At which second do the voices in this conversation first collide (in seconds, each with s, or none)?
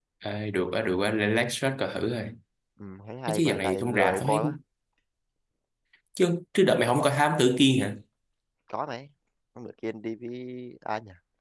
3.3 s